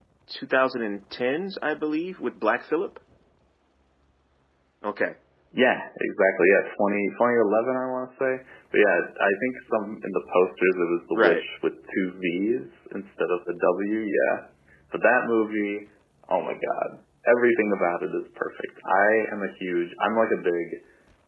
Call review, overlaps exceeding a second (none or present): none